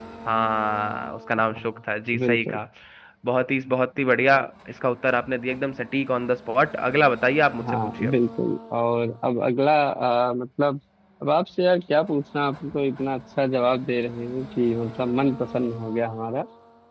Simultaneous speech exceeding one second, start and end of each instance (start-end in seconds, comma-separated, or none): none